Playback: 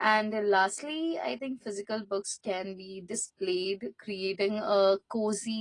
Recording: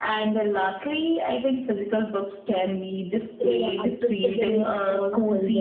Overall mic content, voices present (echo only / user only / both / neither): both